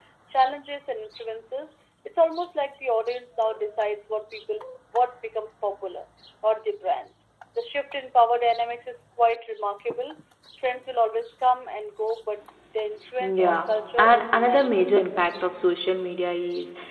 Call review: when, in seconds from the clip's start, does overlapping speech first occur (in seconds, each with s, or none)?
13.2 s